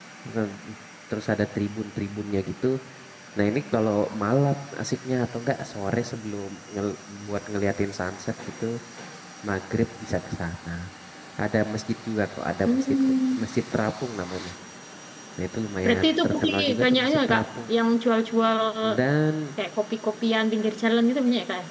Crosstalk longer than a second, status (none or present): present